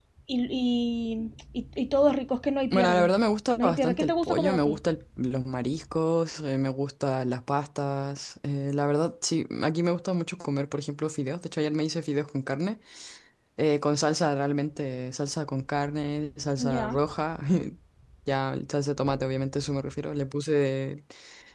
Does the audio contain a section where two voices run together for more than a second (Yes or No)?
Yes